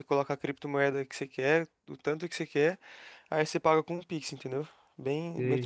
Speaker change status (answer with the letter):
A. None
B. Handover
B